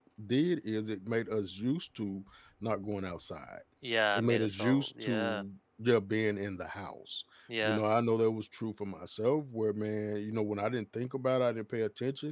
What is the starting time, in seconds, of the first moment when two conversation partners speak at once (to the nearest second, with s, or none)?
4 s